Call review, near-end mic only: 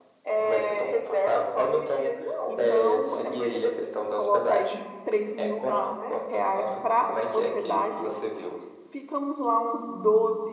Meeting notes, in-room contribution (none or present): present